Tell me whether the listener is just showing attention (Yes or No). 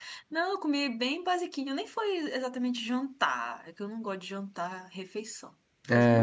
No